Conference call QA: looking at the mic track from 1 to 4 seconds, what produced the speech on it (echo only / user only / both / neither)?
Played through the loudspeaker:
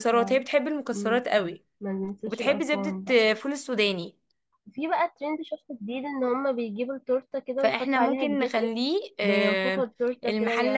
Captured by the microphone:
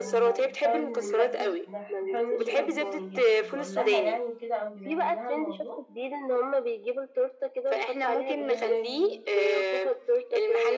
both